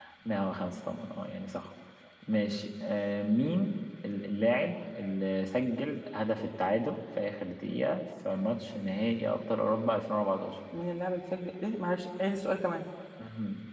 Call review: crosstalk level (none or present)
none